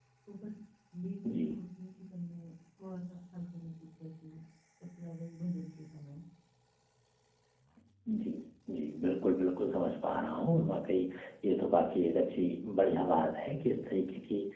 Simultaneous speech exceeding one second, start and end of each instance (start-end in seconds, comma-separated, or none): none